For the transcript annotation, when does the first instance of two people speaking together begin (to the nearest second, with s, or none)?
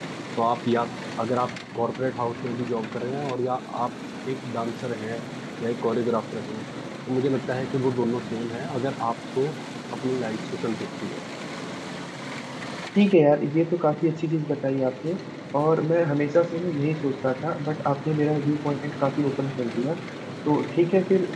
none